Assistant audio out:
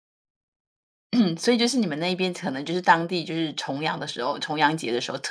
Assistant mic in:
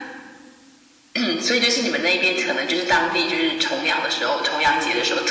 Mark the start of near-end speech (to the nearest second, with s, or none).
none